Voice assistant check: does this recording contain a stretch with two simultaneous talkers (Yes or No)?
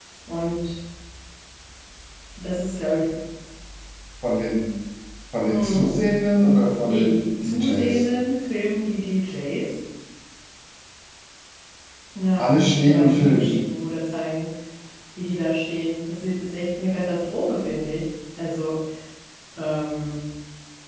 Yes